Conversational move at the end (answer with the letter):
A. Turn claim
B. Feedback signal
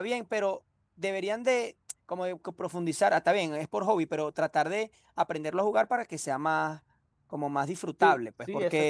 A